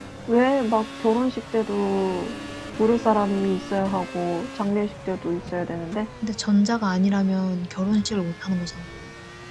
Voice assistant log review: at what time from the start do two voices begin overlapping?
none

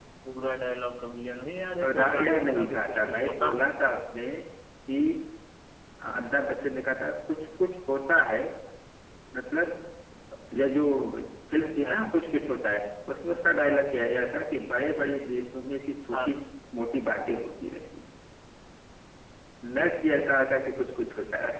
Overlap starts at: 2 s

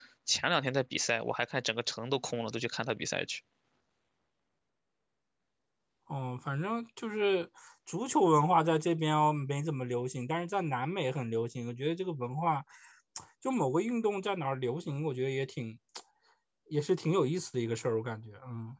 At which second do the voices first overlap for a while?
none

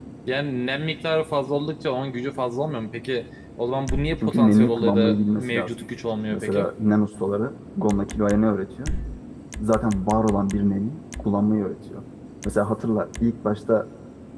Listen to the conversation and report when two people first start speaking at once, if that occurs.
4 s

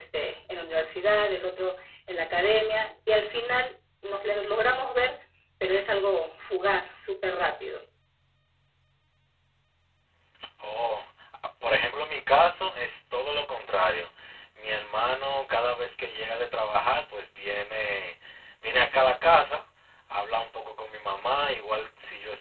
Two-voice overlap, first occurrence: none

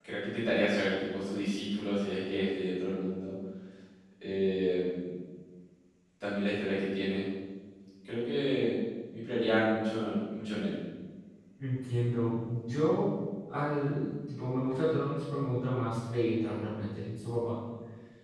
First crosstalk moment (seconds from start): none

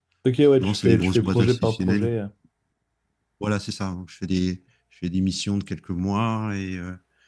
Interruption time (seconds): 1 s

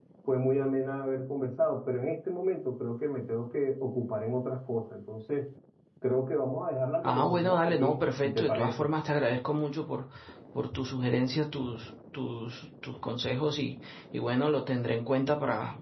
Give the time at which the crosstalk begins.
7 s

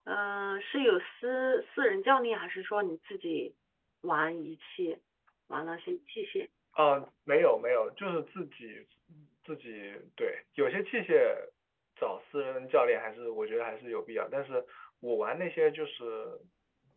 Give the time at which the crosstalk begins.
none

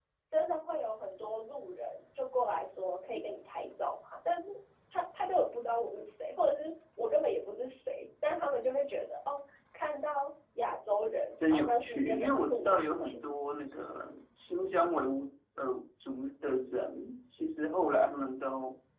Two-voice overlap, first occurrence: 11 s

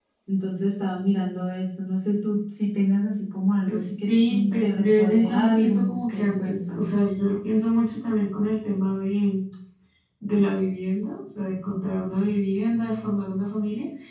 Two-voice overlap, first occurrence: 4 s

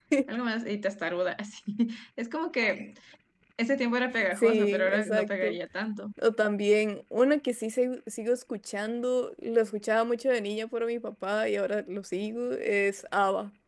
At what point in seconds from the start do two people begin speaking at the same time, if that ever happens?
4 s

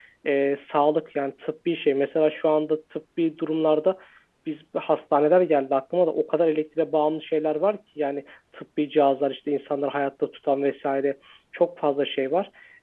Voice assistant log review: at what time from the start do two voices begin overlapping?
none

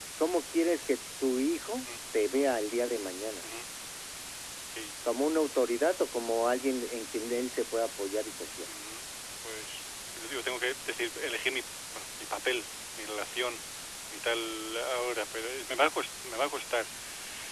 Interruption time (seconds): none

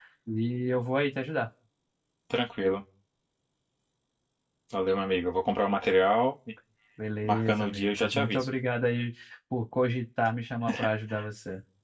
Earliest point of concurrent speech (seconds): 7 s

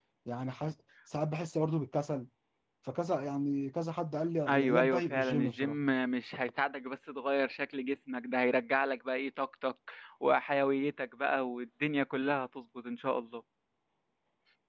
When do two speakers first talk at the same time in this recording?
4 s

